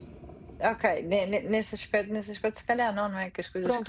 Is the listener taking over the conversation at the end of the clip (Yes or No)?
Yes